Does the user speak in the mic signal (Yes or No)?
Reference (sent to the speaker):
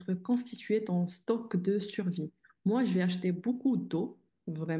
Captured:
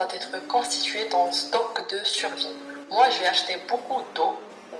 No